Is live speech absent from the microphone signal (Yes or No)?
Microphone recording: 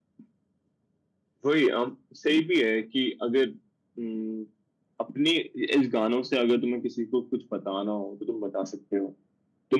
Yes